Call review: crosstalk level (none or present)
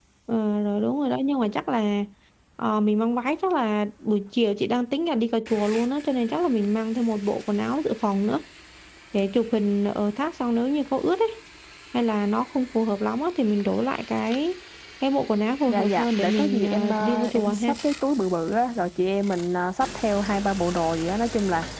present